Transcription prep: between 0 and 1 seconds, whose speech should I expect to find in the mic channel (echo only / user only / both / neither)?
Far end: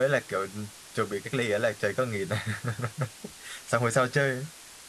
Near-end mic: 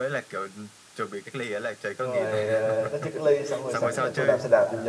echo only